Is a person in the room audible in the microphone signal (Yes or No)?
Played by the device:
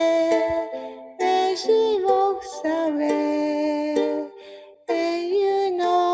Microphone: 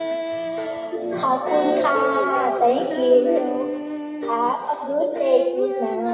Yes